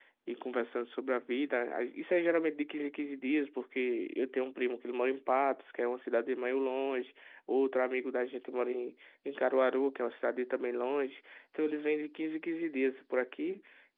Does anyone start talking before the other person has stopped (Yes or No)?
No